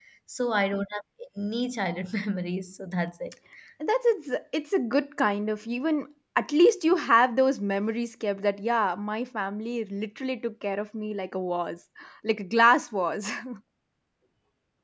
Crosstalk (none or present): none